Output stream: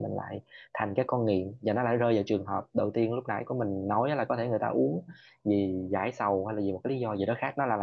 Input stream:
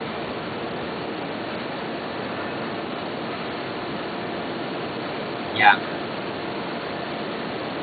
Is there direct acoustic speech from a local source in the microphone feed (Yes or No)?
Yes